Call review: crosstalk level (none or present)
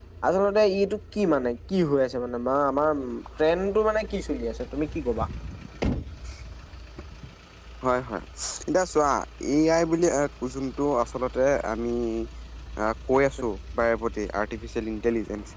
none